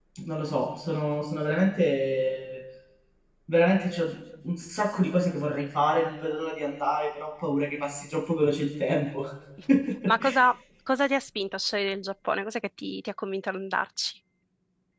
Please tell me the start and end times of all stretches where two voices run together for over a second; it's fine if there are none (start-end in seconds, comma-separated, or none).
none